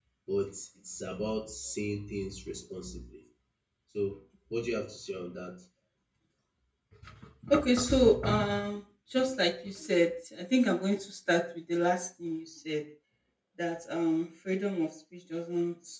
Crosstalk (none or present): none